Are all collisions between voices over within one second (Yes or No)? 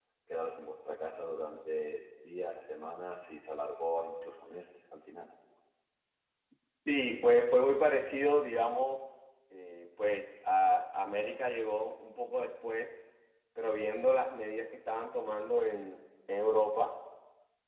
Yes